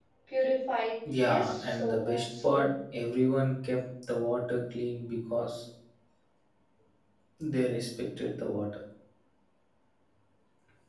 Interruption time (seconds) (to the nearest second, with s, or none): 1 s